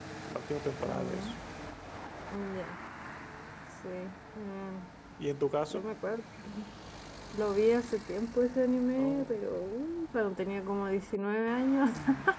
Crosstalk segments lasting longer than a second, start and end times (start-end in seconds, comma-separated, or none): none